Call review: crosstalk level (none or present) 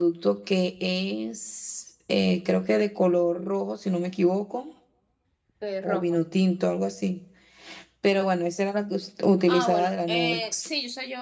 present